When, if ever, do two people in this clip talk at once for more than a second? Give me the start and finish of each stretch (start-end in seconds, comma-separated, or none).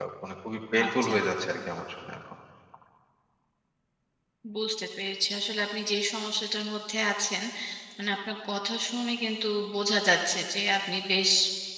none